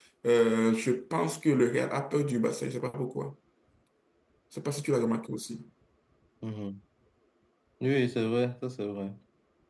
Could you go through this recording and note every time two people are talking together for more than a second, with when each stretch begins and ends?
none

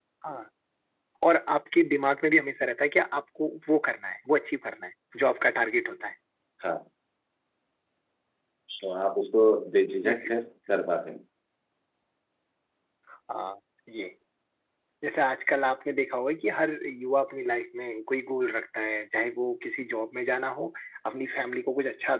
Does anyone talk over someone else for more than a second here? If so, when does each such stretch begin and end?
none

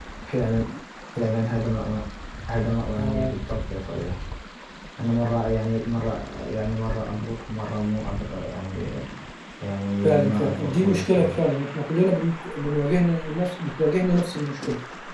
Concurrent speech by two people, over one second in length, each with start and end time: 10.0-11.4

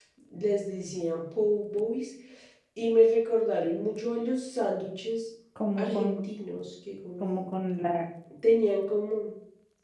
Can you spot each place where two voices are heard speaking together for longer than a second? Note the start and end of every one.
none

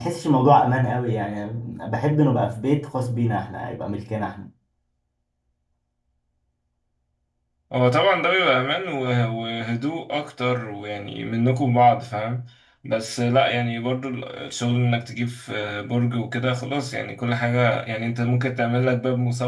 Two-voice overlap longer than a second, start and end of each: none

